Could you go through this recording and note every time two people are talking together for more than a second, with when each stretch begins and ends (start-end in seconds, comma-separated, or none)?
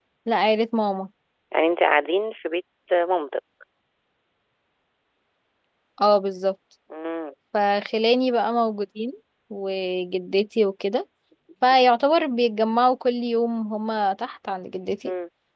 none